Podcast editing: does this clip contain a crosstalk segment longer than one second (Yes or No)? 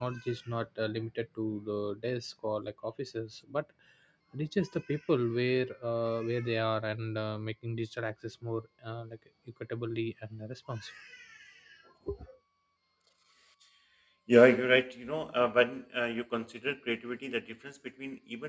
No